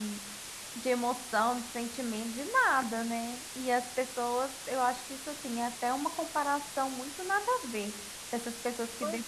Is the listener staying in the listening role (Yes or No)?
Yes